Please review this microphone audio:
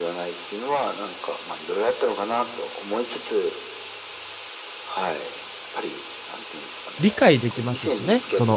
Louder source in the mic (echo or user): user